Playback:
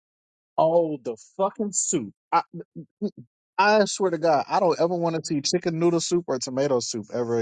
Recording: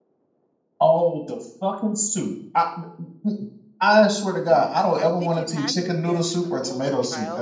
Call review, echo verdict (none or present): present